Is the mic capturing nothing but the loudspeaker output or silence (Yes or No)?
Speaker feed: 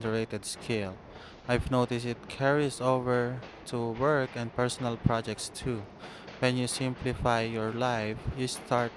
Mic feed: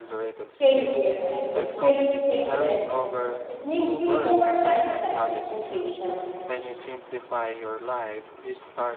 No